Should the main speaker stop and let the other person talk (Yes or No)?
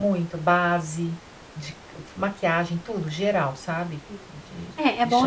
Yes